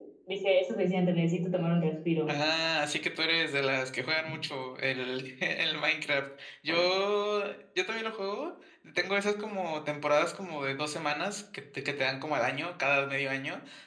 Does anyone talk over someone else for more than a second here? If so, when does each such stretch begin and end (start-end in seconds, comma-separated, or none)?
none